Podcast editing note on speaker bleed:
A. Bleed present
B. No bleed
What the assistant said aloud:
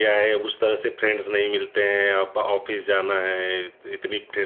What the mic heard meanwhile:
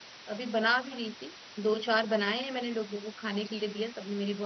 B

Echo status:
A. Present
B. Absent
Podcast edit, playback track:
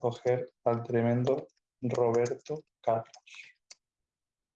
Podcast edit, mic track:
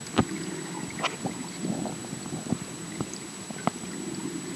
B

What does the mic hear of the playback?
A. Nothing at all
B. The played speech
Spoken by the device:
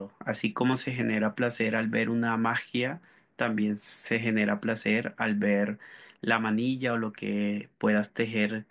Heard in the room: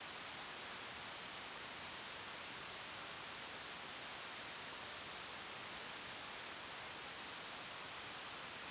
A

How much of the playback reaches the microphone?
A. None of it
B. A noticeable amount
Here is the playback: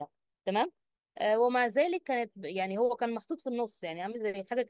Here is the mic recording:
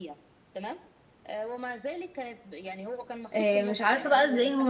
B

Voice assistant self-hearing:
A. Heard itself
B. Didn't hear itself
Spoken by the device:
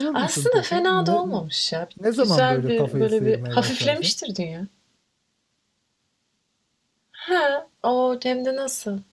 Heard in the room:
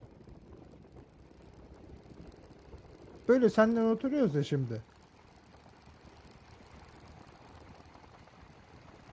B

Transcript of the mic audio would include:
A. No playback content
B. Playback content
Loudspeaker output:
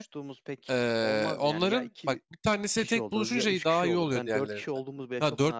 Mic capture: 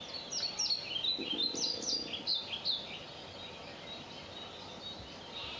A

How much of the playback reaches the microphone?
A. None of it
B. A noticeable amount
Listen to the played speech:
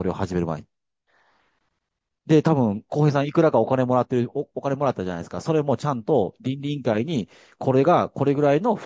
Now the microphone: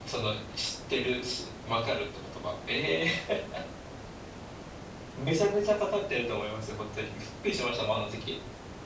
A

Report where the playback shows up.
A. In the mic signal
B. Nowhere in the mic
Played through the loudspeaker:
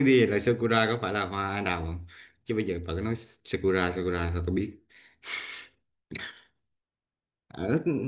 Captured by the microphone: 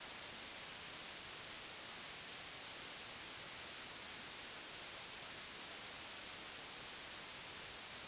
B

